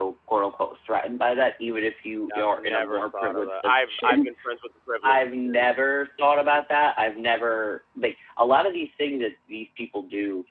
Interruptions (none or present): present